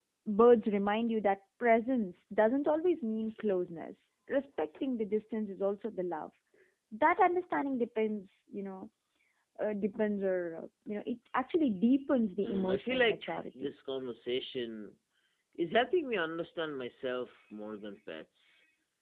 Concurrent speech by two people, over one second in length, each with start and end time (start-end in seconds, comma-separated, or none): 12.4-13.7